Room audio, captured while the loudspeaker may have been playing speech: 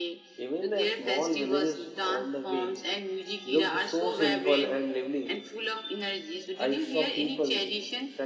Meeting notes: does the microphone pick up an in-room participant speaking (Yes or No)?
Yes